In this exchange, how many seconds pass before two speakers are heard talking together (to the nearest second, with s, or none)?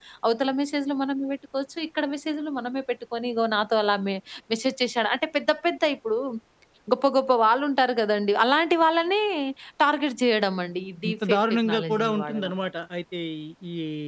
11 s